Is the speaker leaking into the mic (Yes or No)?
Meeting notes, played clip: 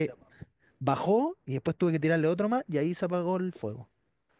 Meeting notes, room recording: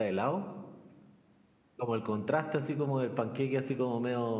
No